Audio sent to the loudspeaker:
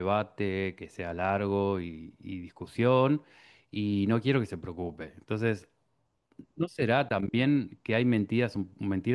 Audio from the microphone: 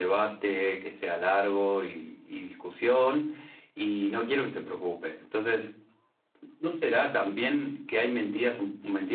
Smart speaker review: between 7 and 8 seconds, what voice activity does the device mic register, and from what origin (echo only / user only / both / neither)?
echo only